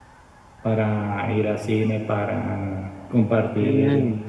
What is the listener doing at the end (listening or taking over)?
listening